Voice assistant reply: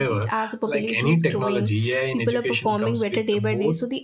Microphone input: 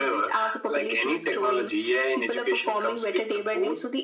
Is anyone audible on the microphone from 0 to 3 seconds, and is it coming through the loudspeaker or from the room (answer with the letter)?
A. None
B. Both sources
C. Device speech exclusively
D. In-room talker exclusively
C